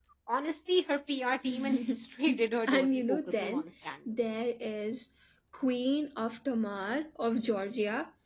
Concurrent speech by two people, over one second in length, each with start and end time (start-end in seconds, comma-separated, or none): 1.4-3.6